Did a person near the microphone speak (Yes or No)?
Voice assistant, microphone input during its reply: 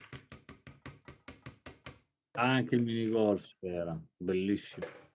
Yes